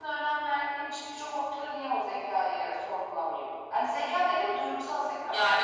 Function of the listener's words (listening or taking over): taking over